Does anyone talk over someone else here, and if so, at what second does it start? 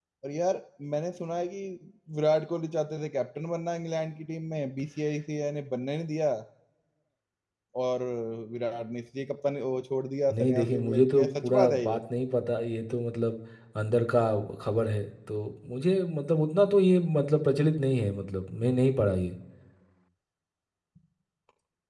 10.3 s

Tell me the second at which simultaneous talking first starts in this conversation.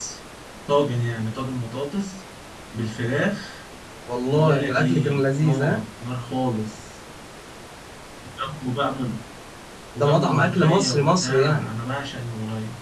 4.3 s

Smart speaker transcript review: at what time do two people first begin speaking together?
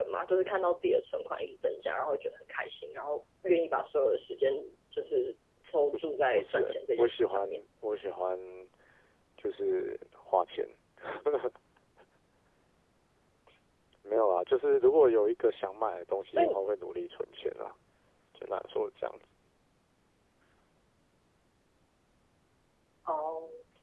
6.3 s

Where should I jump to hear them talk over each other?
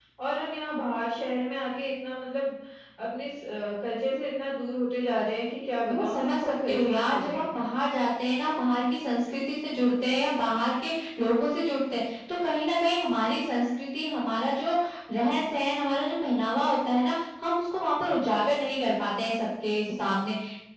5.9 s

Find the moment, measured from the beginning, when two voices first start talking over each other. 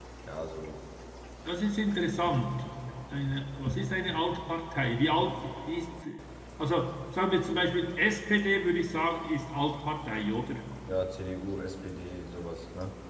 none

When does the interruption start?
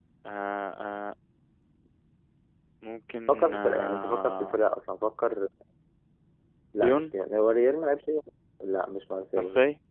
3.3 s

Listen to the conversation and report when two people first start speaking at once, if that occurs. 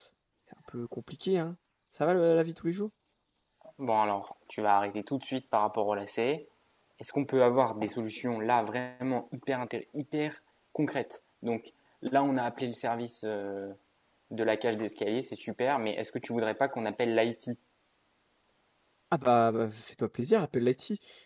none

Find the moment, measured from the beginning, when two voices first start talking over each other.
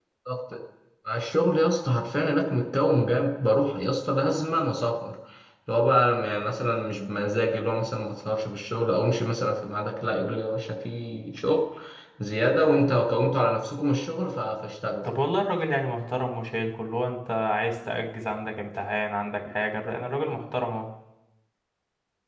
none

